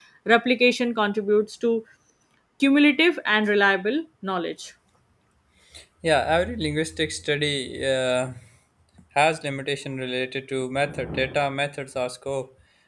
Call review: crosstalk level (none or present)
none